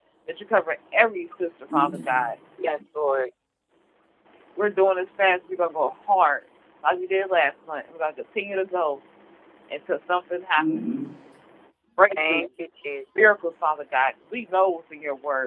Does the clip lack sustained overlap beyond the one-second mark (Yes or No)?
Yes